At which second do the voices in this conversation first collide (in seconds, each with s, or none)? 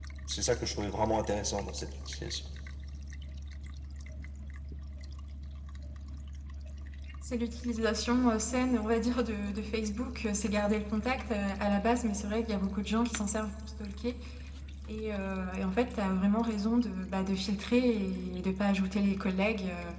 none